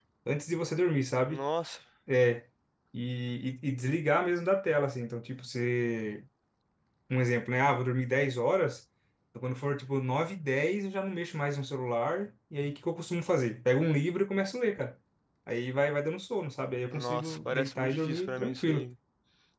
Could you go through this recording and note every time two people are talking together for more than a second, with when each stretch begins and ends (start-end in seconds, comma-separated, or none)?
16.9-18.9